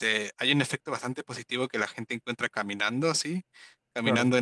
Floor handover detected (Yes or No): No